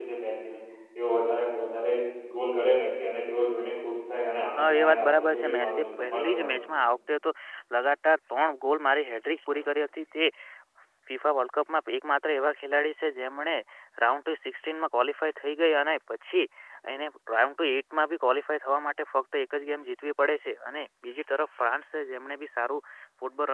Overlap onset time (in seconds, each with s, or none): 4.6 s